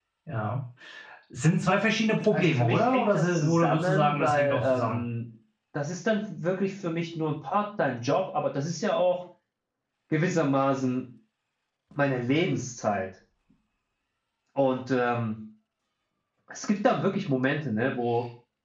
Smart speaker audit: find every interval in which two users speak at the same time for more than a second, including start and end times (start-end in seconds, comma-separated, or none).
2.3-5.0